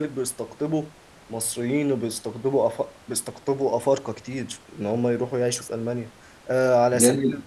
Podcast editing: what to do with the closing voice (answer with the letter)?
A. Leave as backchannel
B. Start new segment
A